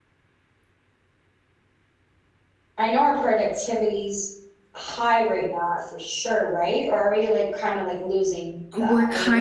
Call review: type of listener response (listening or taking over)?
taking over